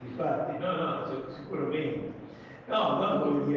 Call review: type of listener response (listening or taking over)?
listening